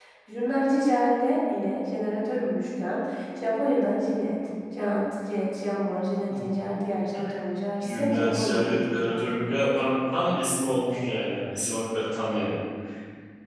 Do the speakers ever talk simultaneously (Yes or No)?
Yes